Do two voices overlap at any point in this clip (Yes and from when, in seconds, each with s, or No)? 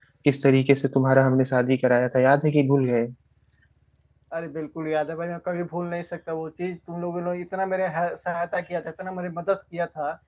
No